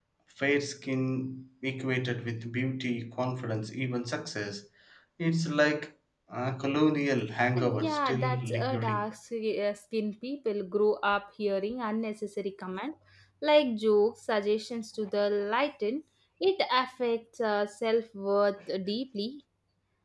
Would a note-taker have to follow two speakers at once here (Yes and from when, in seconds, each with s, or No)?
Yes, from 7.6 s